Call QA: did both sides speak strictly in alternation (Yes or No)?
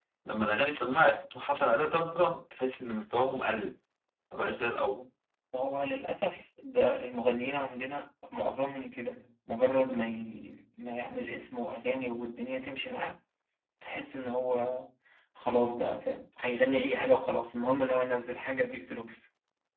Yes